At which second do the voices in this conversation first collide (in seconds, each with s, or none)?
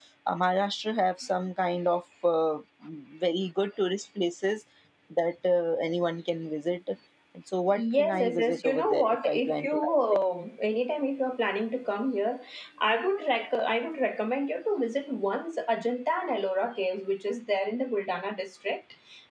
7.7 s